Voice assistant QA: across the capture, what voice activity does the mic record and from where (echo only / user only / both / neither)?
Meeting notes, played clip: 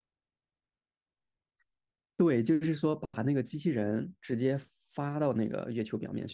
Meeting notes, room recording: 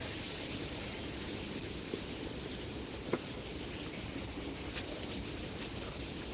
neither